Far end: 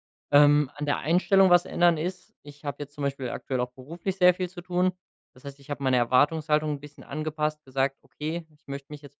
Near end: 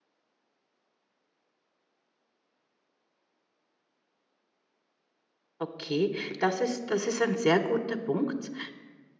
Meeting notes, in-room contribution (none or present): present